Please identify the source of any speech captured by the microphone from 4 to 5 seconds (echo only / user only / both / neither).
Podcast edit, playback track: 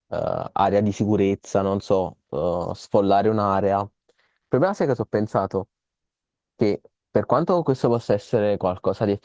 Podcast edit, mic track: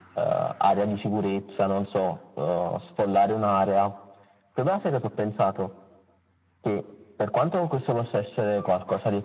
echo only